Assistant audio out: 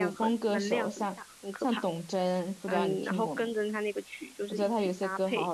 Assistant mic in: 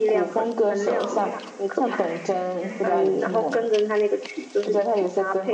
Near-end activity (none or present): present